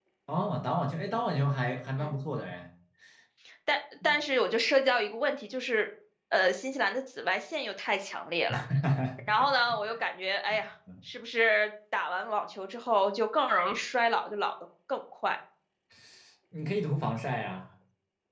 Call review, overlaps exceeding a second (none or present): none